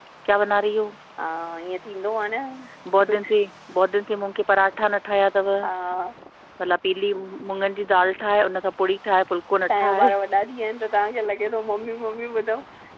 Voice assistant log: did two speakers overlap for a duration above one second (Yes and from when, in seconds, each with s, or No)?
No